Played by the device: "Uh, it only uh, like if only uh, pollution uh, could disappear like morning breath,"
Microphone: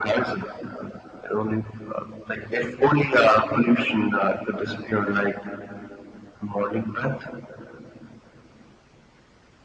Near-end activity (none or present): none